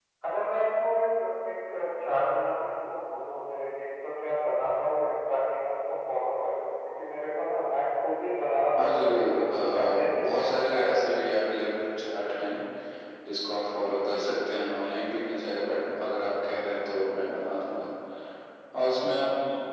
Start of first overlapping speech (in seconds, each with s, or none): 8.8 s